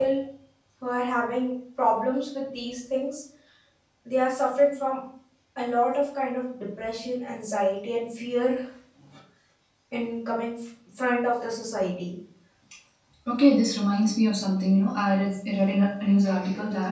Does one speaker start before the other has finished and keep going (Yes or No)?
No